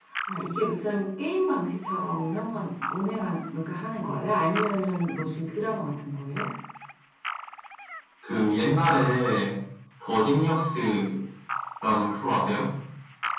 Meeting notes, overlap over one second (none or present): none